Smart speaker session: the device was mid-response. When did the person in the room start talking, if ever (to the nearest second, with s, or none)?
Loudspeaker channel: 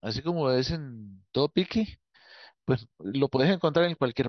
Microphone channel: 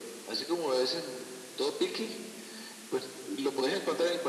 none